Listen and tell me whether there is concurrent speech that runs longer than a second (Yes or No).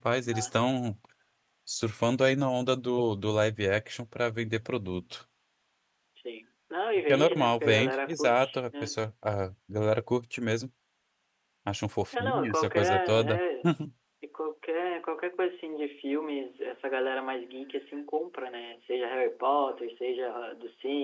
Yes